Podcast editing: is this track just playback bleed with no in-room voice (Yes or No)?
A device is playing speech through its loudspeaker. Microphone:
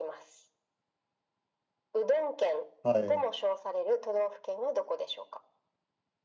No